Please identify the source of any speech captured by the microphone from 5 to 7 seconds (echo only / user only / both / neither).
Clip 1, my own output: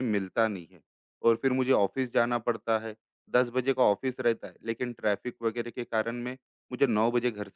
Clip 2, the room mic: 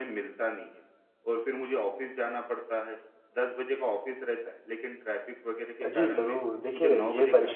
both